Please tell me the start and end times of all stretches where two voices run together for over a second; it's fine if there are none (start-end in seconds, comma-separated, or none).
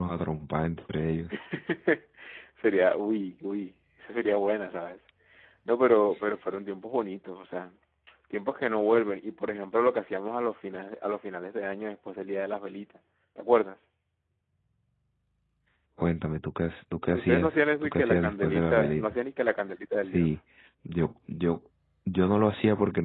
17.1-19.2